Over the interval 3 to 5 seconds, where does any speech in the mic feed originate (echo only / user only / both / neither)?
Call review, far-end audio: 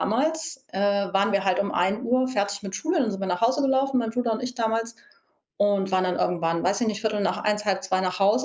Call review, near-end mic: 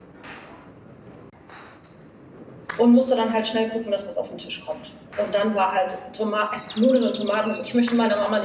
user only